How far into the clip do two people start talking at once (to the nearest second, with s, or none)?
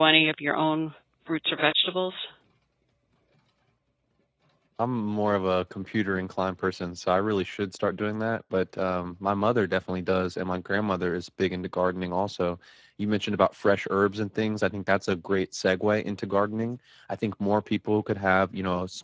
none